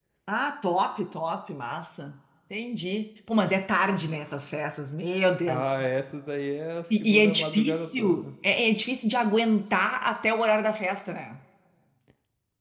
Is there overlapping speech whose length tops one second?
Yes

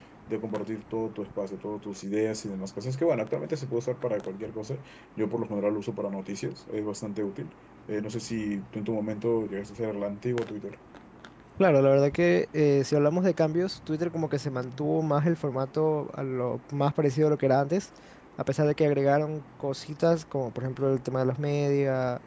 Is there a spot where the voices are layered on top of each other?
No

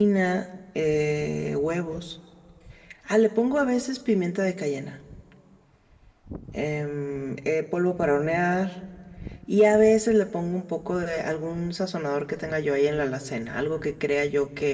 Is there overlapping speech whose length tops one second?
No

